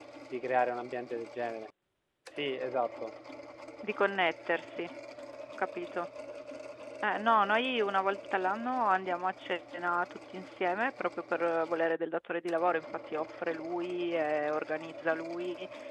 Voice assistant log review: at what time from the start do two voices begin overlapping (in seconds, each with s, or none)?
none